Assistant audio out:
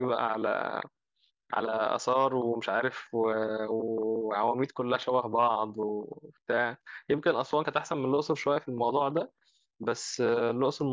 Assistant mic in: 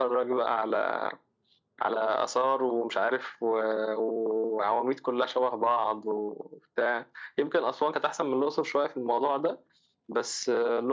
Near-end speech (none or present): none